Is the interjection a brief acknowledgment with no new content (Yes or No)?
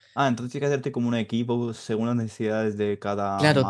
No